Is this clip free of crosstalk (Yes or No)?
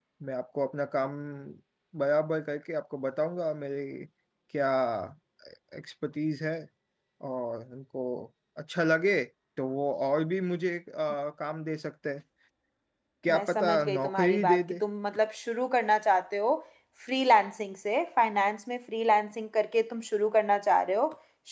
No